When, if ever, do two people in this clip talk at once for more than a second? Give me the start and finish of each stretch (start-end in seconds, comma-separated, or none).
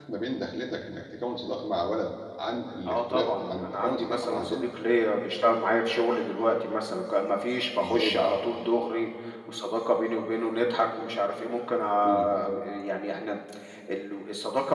2.9-4.6